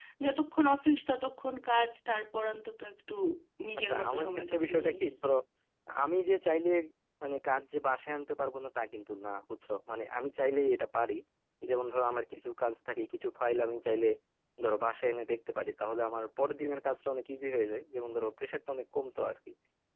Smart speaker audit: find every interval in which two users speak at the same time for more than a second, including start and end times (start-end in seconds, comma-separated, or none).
3.8-5.0